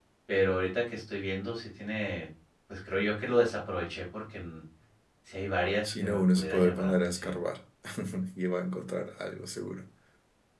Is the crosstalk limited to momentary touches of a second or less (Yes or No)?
No